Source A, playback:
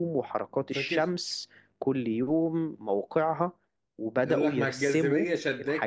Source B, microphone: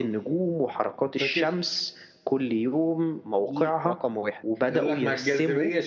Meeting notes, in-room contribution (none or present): present